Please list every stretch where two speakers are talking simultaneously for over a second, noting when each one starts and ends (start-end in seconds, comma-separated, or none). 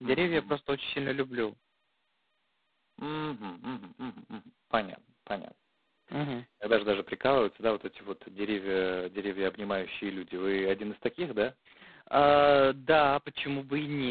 none